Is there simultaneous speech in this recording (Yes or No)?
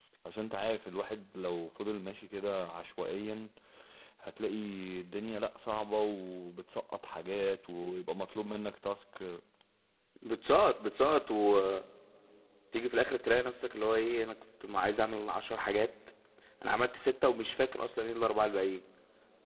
No